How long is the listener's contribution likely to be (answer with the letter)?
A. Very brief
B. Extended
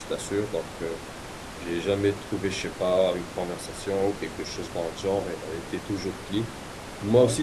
A